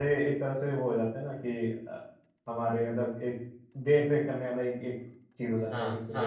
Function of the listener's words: taking over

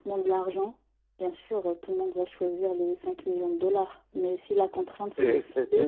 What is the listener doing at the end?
taking over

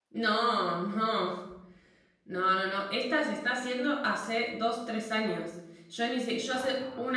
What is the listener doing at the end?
listening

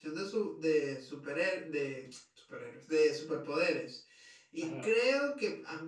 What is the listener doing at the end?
listening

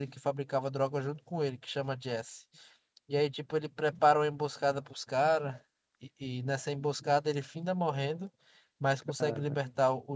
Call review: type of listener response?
listening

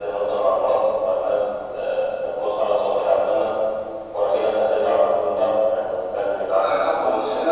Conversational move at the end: taking over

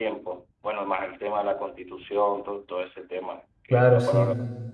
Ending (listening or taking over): taking over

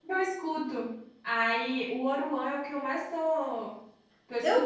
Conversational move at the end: taking over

